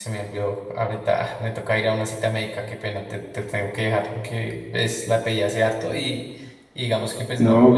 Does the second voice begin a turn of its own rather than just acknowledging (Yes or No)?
Yes